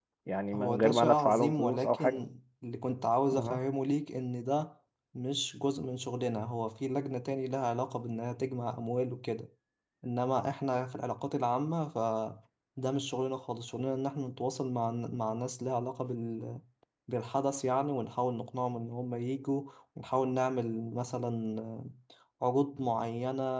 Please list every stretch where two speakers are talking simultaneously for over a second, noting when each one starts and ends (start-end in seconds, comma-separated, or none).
0.5-2.2